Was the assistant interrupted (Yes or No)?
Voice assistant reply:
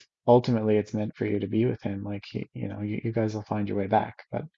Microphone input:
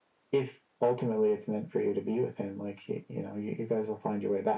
No